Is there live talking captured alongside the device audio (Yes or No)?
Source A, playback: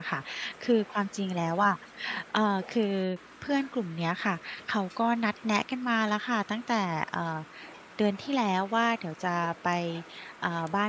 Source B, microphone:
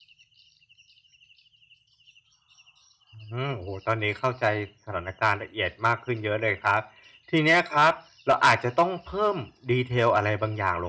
Yes